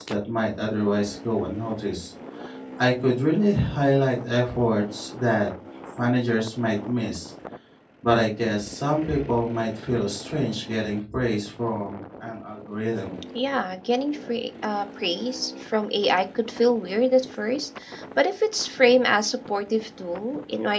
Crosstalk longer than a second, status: none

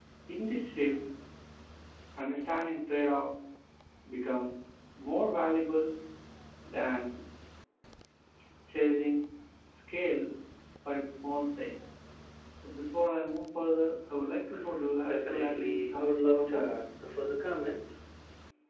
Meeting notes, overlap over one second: present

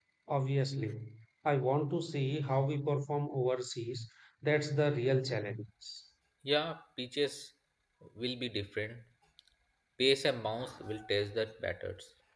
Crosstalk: none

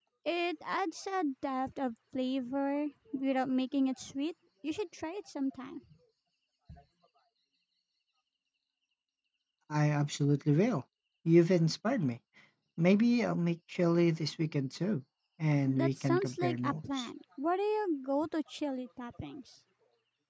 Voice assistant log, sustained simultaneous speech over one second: present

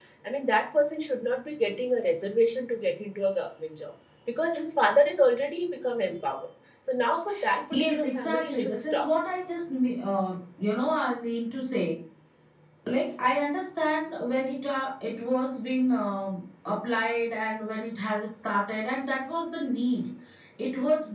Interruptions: present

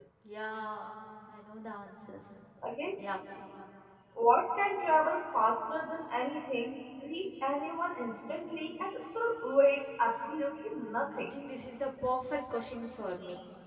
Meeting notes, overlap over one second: none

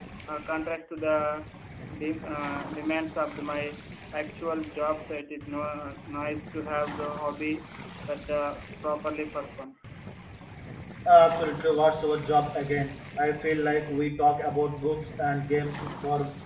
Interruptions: none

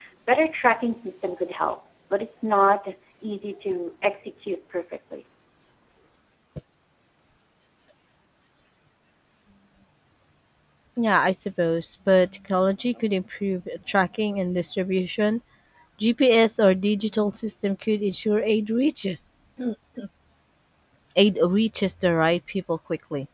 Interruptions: none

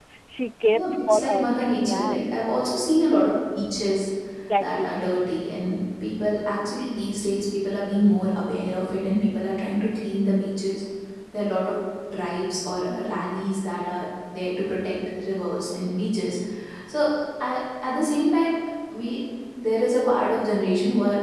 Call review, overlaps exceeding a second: present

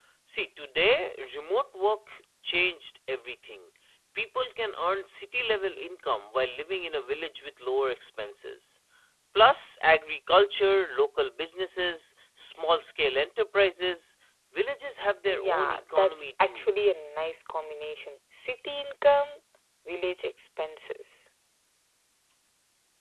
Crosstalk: present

